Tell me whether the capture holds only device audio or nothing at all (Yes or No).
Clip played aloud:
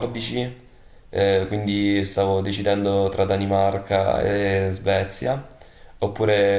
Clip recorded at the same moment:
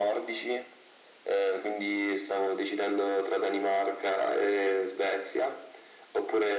Yes